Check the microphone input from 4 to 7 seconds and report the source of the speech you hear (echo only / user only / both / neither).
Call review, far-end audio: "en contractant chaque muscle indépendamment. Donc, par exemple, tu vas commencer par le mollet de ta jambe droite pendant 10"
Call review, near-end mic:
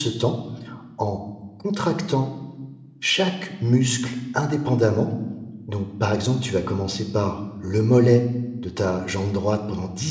echo only